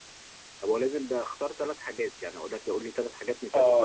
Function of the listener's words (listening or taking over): taking over